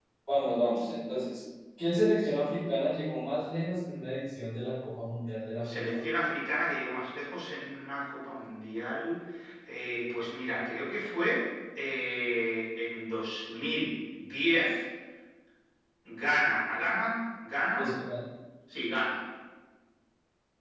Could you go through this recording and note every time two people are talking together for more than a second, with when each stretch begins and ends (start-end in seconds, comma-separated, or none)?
none